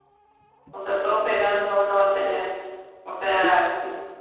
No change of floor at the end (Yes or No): Yes